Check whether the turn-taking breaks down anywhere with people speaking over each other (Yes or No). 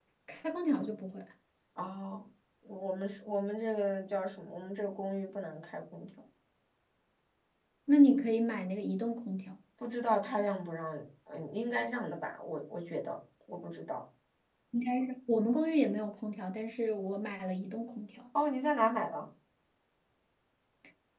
No